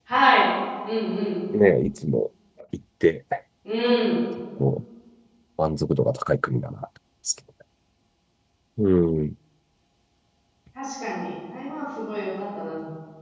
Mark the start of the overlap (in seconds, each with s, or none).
none